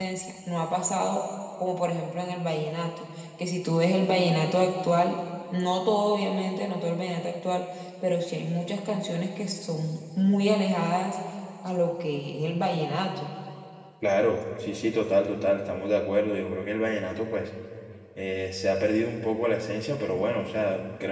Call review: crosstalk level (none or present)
none